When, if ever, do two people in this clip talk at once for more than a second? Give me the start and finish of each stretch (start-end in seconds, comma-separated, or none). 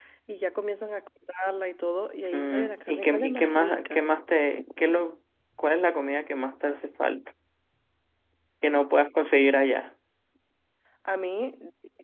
2.3-4.1